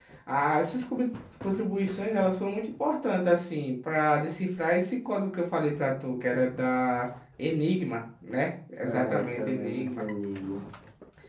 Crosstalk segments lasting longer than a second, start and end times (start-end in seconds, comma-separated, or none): 8.8-10.0